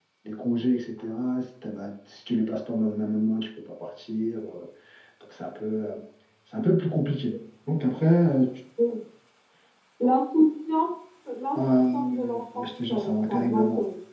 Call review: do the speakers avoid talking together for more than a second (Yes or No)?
No